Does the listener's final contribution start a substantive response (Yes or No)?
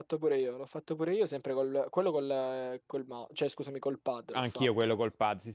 Yes